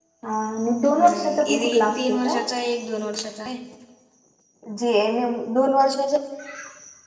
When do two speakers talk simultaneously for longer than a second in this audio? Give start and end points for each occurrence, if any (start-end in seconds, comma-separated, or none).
1.0-2.4